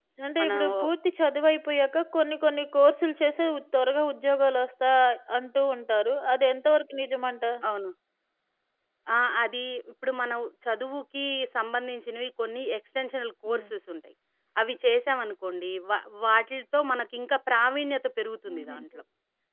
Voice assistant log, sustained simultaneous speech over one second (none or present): none